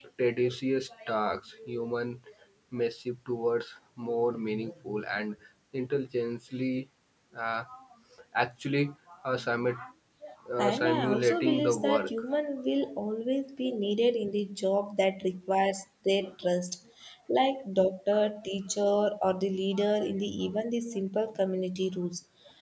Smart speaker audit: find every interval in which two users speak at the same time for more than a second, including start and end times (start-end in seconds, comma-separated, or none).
10.6-12.1